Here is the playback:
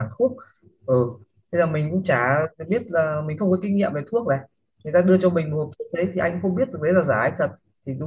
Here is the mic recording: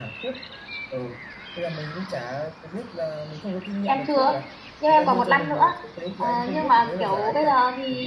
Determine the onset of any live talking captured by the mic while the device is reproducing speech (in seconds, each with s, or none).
3.8 s